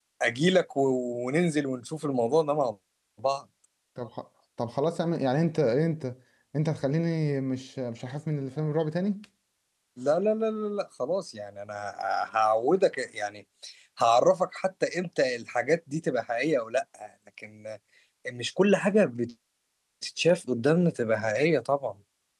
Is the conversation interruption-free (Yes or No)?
Yes